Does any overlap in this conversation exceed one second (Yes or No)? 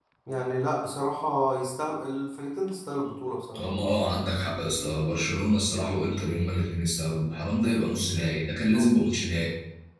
No